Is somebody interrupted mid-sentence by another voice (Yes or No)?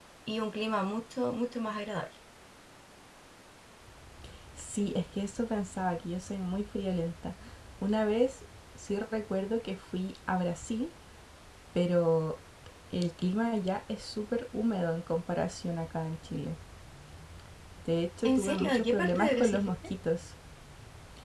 Yes